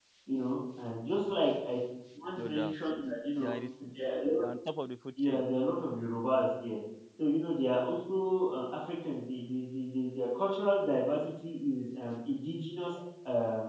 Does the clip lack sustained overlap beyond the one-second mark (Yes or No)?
Yes